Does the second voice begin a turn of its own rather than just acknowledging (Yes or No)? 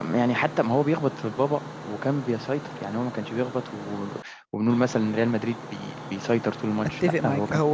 Yes